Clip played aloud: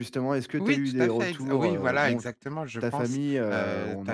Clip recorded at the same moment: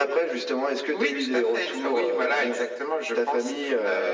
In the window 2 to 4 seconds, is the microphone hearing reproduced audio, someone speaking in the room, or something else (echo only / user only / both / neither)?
echo only